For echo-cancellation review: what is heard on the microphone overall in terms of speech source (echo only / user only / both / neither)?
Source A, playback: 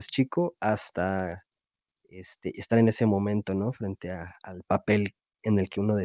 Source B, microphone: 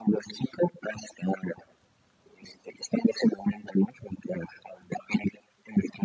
echo only